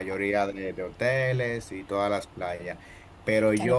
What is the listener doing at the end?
taking over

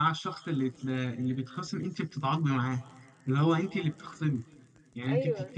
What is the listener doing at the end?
listening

